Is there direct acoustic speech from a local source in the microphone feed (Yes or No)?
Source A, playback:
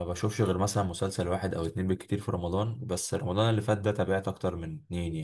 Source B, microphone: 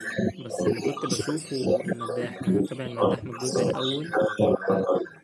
Yes